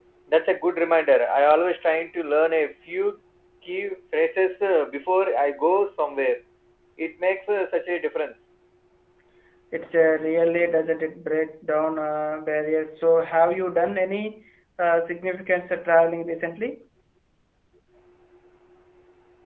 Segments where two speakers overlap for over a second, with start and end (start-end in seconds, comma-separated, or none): none